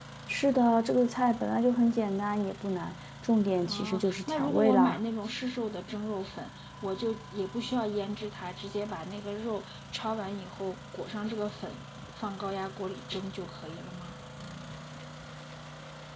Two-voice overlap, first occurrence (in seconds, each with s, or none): 3.6 s